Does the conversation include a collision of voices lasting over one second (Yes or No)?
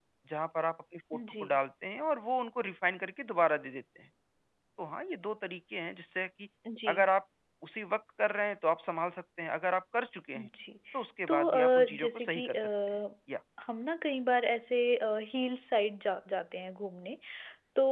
Yes